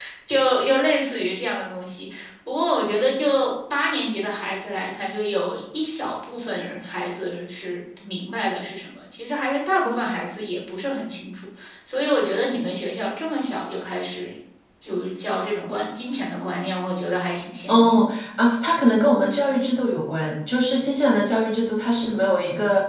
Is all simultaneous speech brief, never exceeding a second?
Yes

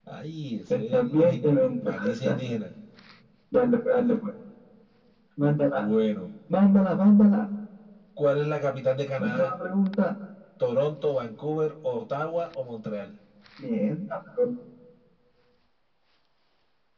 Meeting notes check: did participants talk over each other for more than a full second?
Yes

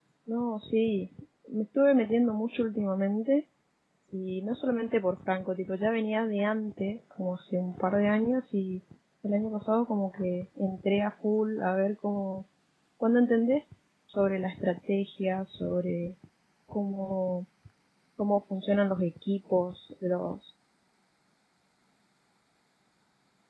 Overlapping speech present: No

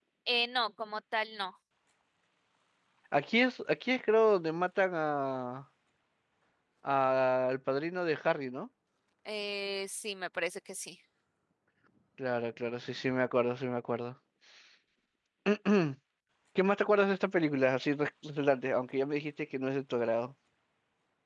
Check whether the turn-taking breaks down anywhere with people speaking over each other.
No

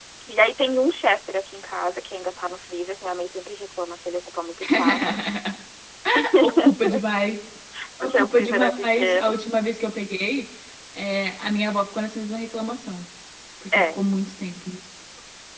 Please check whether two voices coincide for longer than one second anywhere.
Yes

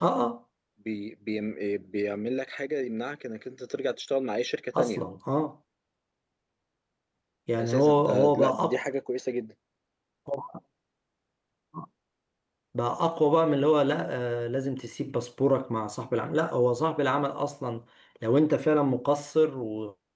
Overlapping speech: Yes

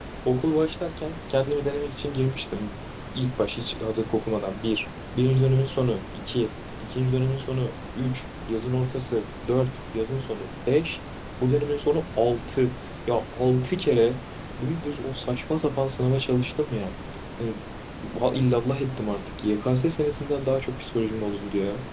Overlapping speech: No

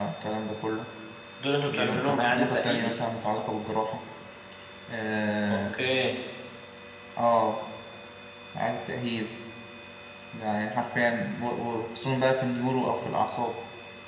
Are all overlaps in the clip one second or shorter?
No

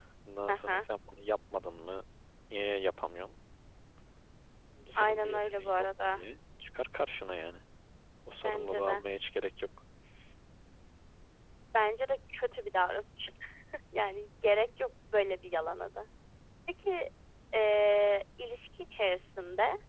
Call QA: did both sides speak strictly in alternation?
No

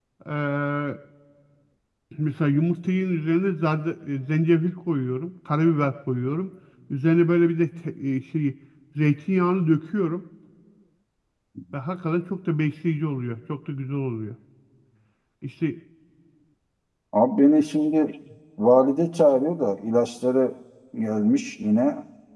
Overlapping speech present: No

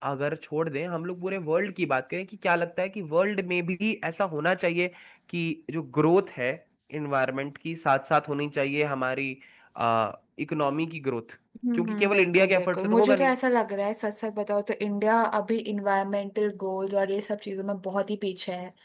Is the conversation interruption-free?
No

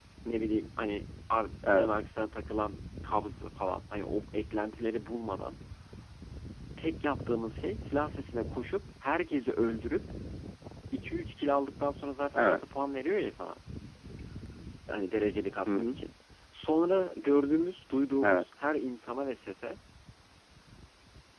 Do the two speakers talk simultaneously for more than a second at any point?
No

